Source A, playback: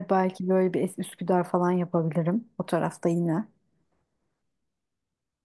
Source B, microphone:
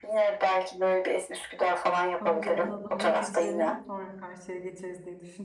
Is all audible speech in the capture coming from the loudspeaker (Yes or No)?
No